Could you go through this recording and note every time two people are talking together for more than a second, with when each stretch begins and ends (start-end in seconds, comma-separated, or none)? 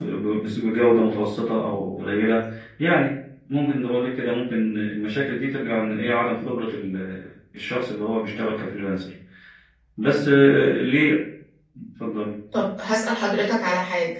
none